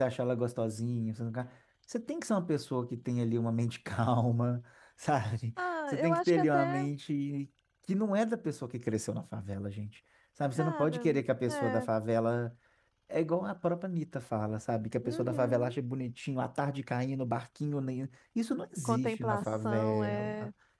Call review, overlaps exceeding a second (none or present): present